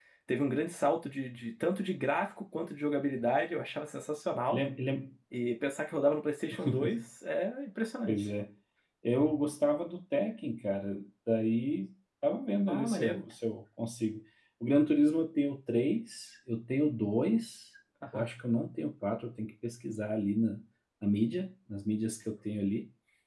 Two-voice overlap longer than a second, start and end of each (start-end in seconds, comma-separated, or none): none